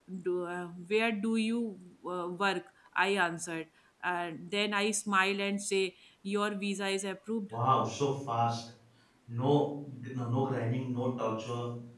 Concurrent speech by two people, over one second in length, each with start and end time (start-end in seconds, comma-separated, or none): none